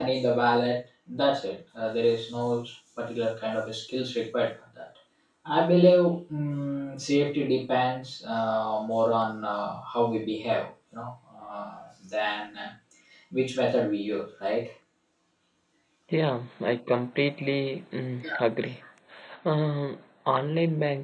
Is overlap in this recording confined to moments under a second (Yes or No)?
Yes